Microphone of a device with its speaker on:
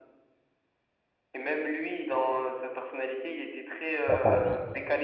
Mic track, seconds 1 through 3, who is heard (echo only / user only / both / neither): echo only